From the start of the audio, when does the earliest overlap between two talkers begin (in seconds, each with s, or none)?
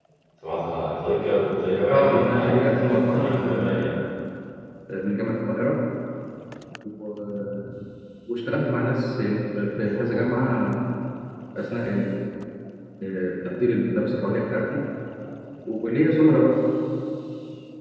1.9 s